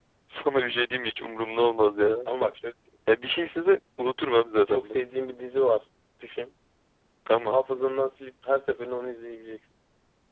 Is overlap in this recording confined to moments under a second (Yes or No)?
Yes